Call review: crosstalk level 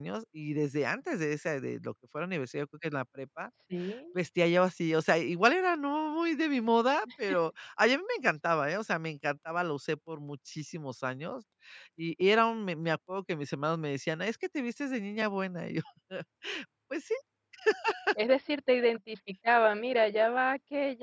none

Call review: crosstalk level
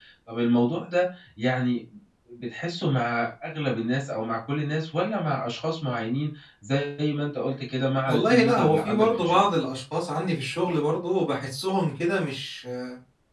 present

